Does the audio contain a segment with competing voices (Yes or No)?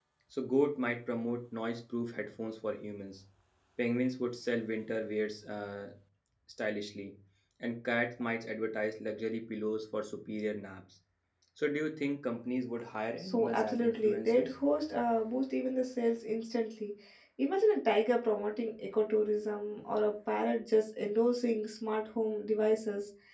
Yes